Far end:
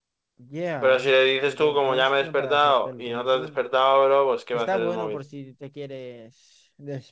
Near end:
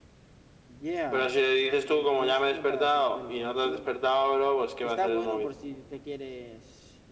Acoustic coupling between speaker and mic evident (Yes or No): Yes